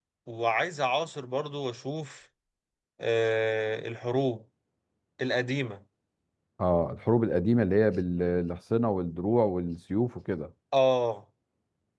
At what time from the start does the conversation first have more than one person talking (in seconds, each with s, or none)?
none